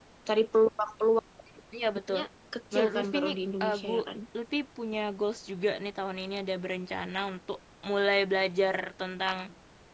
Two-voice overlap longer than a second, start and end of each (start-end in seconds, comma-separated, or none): 2.7-4.0